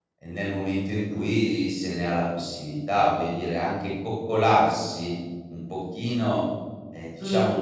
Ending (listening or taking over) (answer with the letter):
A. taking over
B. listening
B